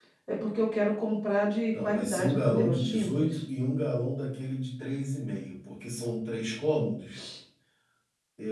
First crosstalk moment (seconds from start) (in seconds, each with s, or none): 1.7 s